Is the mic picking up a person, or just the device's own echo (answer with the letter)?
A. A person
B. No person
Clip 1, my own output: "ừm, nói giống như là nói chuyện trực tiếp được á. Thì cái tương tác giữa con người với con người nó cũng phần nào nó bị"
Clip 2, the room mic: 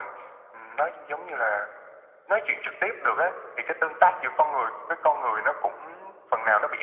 B